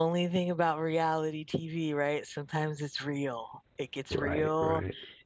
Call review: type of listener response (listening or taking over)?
listening